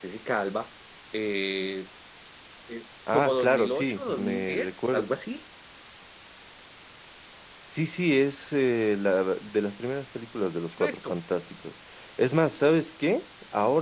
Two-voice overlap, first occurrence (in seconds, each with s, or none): 3.1 s